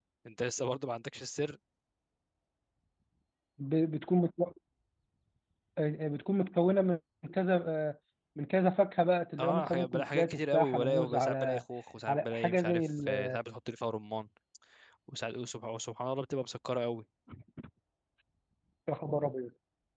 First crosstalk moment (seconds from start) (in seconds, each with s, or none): 9.4 s